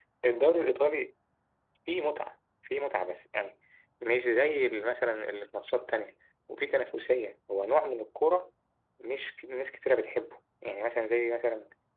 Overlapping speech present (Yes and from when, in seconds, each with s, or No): No